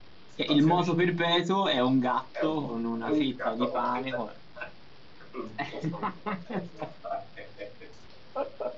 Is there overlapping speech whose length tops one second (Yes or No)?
Yes